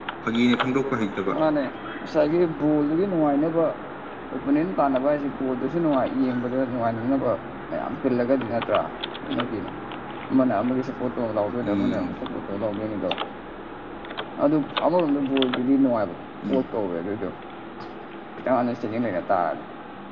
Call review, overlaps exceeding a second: none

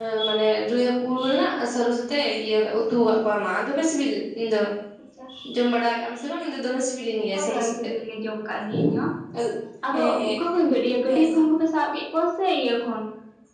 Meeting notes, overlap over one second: none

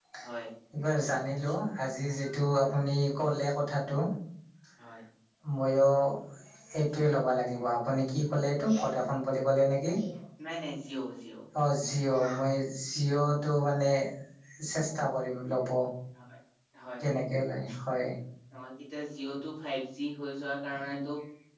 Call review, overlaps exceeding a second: none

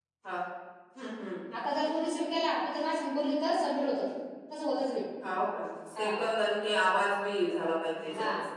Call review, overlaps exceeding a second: none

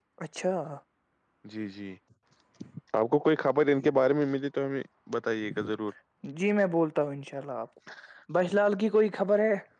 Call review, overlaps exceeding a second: none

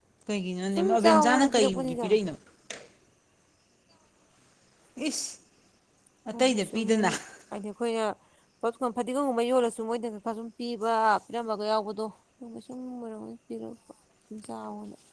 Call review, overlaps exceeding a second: present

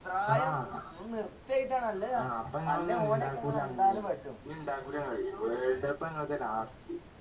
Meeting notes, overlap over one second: present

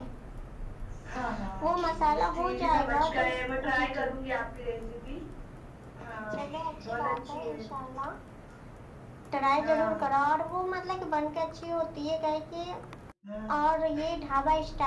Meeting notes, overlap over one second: present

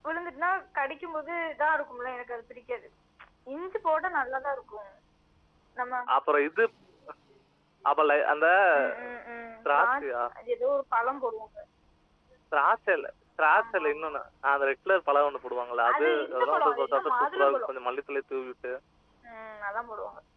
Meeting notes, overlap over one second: present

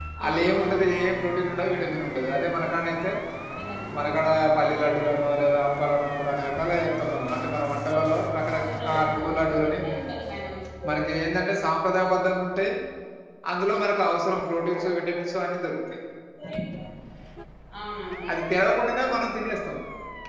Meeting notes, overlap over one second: present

